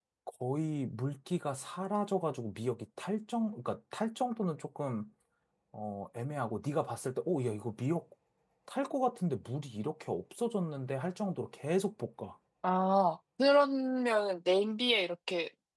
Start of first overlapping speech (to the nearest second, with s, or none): none